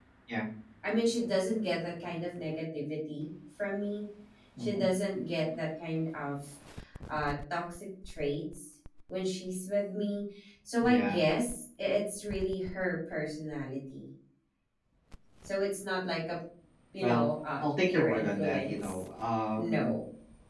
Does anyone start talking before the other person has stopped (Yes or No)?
Yes